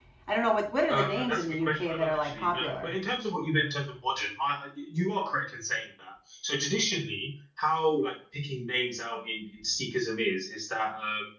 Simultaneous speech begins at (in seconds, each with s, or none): 0.9 s